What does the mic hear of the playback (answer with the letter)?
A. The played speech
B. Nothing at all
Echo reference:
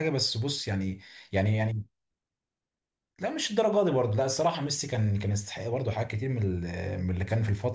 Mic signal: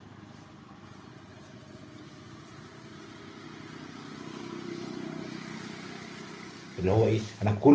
B